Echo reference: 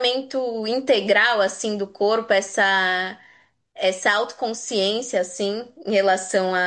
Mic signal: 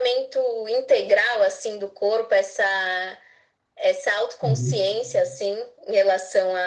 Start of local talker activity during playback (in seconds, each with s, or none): 4.4 s